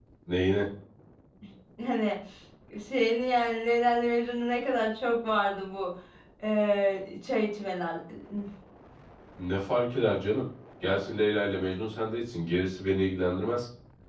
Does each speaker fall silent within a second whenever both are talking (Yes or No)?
Yes